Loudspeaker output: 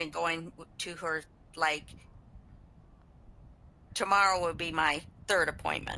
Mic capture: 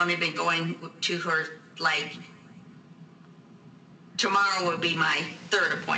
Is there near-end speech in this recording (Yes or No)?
No